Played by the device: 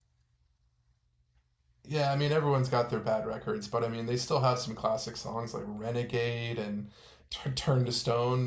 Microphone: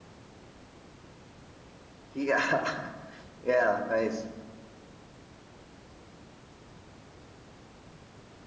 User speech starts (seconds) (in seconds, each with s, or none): 2.1 s